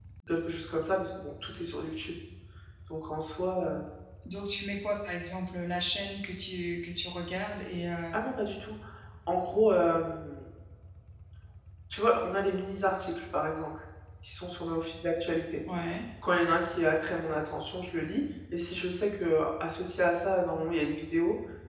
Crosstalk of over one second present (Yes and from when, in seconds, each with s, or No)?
No